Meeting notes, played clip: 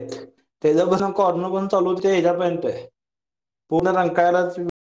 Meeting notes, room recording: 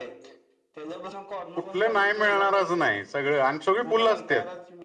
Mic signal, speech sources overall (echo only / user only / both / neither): both